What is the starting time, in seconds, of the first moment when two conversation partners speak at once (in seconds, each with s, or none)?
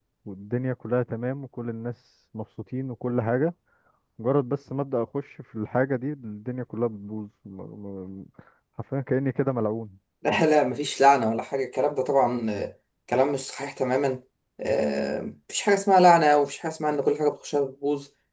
none